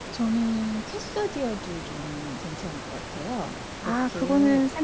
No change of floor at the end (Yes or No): No